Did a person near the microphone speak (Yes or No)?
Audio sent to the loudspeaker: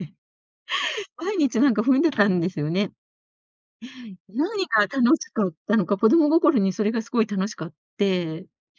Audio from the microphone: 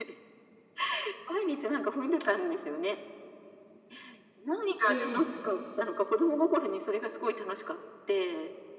Yes